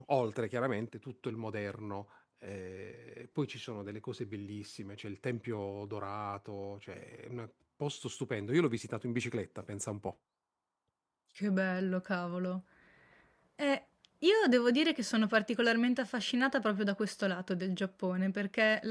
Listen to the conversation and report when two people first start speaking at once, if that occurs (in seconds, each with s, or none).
none